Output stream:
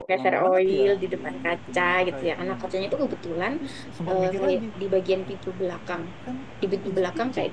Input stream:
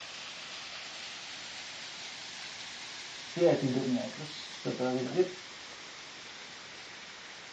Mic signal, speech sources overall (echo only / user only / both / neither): user only